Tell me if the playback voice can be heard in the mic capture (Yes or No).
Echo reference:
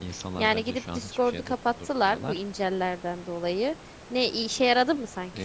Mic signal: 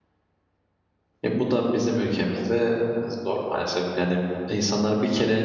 No